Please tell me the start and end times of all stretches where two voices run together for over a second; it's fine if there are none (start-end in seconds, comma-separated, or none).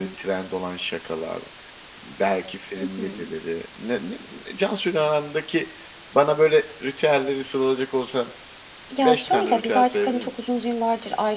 9.0-10.5